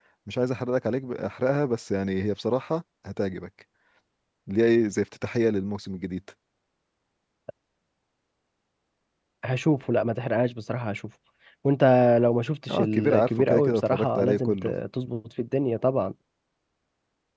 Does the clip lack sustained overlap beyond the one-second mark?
No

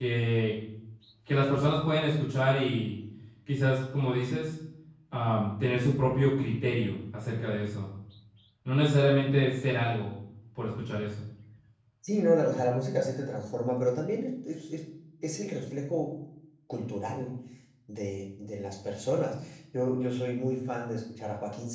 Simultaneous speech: No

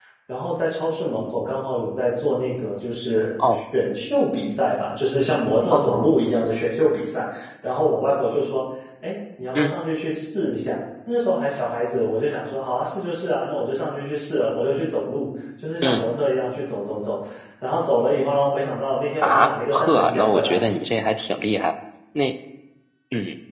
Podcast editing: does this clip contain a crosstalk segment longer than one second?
Yes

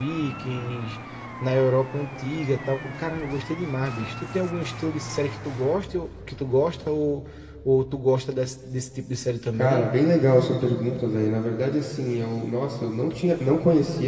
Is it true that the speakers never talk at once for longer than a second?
Yes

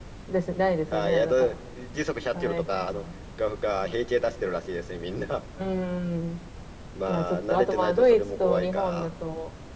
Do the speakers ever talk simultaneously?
Yes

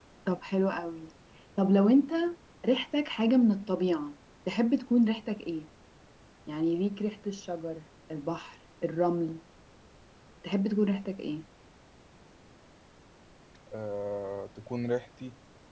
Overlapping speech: No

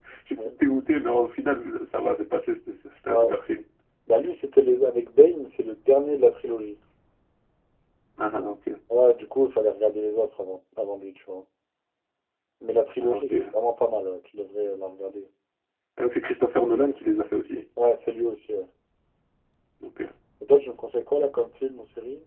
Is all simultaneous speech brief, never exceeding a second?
Yes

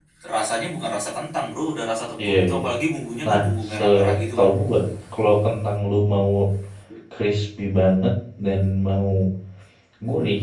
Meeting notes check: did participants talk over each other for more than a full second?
Yes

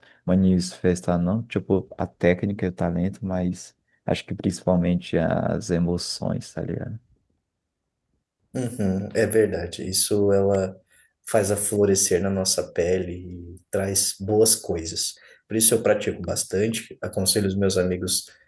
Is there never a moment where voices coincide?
Yes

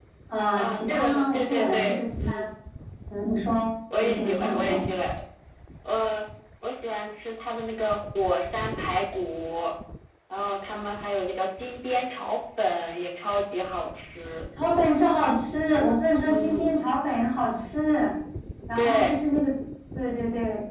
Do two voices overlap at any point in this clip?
Yes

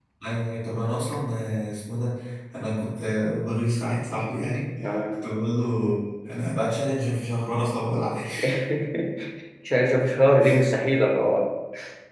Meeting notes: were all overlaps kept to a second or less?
Yes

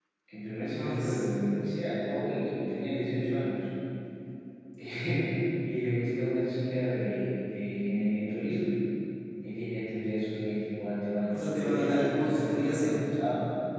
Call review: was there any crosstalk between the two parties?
Yes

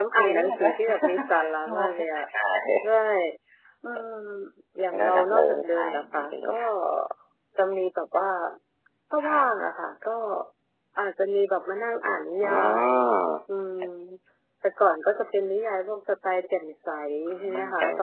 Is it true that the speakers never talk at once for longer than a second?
No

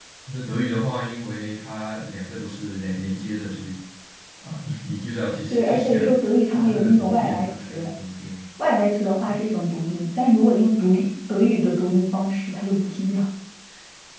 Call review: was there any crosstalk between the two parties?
Yes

